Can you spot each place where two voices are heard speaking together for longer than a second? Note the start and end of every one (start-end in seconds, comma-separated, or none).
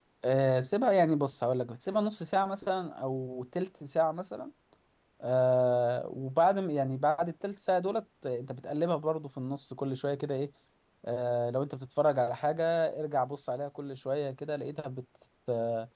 none